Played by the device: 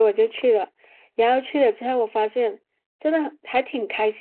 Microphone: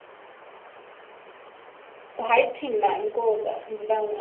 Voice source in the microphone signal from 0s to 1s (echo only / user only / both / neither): neither